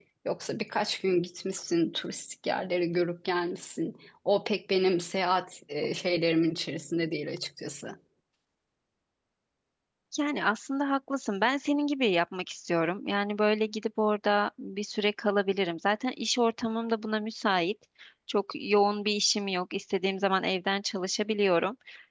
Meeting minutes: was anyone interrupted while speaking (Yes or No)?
No